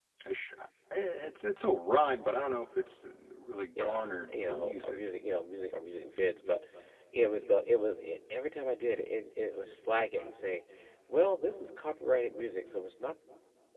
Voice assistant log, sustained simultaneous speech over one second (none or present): present